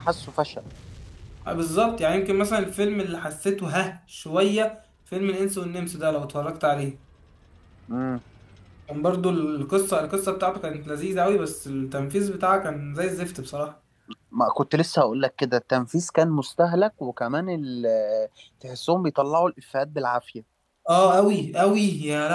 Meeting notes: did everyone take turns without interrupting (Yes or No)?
Yes